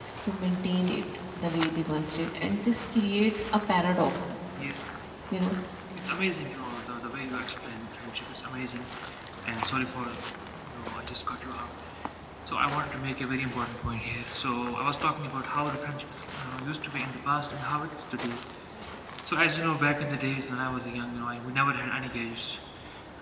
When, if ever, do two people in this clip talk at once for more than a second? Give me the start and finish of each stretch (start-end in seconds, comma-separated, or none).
none